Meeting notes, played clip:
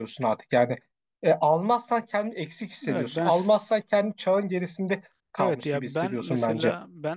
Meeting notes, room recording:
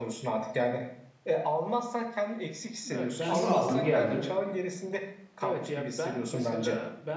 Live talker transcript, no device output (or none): Sonra aldım geldim.